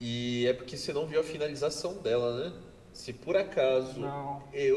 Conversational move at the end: listening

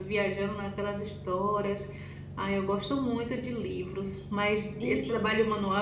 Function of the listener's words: listening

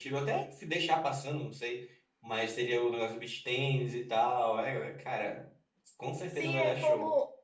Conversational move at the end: taking over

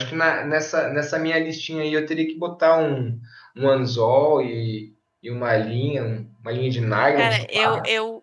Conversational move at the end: taking over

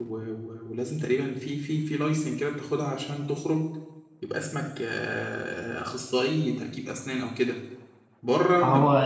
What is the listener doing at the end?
listening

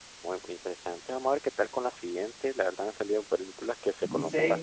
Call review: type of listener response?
taking over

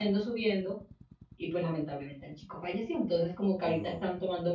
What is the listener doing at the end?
listening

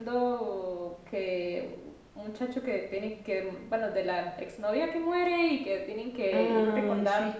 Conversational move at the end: listening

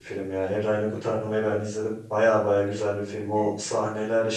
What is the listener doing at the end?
listening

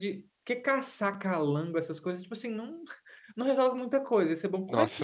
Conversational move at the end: listening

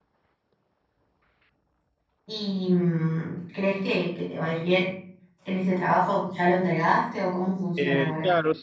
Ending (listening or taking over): taking over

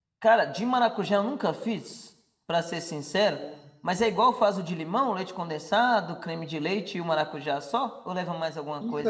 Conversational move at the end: taking over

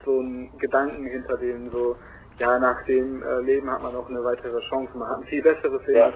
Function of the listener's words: listening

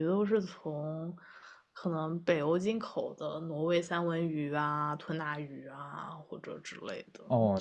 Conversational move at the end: taking over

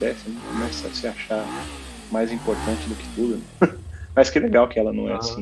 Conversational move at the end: listening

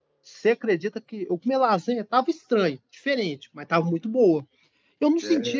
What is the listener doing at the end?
listening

